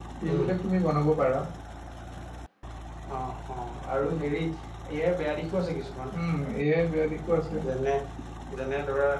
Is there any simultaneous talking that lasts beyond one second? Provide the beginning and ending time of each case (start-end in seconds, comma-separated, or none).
none